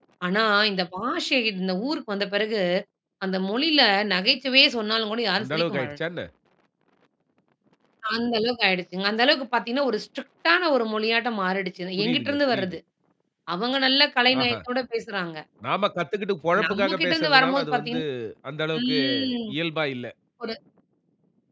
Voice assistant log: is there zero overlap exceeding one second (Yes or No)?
No